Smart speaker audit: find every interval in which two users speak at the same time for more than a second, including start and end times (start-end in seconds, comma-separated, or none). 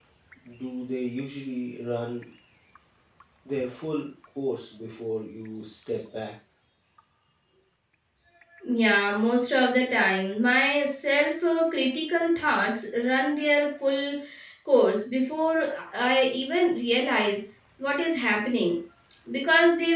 none